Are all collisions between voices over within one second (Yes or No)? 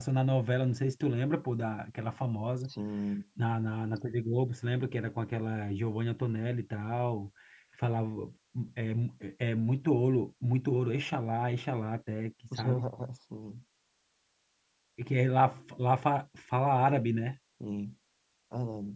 Yes